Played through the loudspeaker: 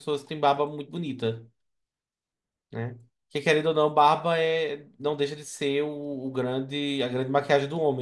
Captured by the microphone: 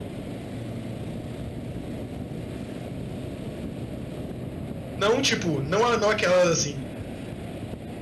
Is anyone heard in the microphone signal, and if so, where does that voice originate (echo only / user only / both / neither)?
user only